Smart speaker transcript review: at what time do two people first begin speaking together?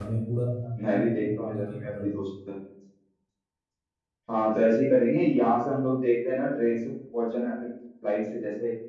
0.8 s

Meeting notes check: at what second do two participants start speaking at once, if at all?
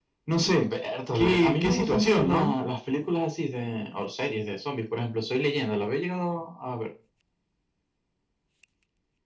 1.1 s

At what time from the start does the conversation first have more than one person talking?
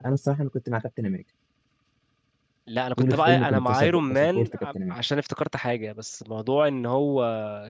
3.0 s

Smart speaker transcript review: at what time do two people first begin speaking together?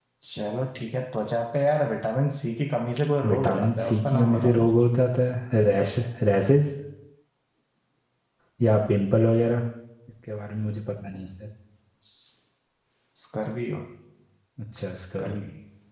3.2 s

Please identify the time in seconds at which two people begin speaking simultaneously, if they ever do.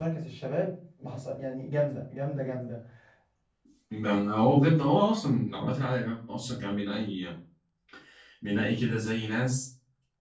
none

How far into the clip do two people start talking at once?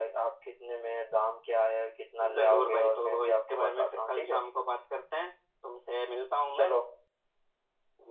2.2 s

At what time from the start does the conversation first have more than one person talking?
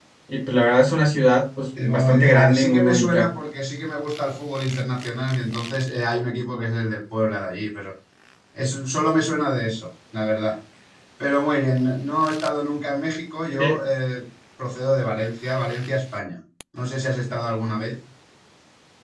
1.8 s

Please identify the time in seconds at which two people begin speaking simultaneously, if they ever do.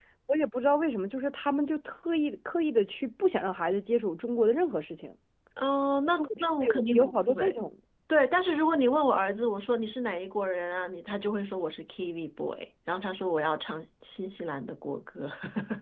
6.1 s

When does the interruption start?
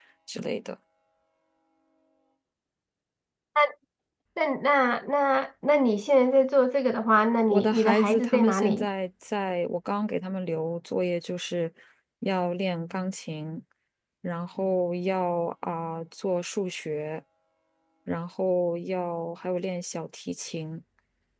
7.5 s

